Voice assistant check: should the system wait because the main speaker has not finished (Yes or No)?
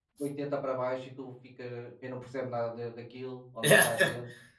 Yes